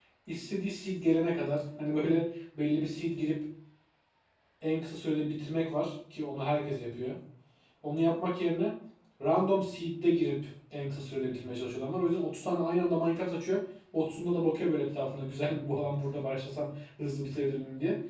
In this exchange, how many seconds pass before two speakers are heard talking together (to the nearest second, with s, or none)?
none